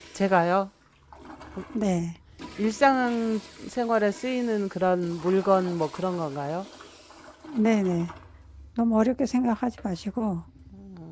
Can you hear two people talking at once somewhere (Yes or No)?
No